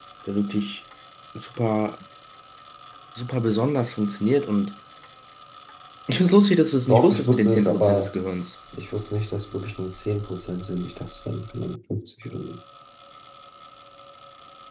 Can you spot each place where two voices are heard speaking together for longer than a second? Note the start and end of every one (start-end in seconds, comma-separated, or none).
6.9-8.1